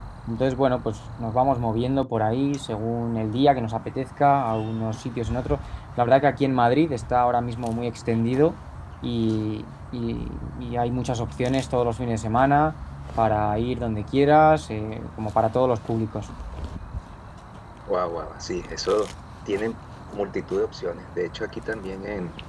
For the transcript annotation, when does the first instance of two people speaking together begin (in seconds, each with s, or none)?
none